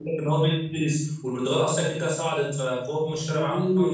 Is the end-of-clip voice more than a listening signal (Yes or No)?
Yes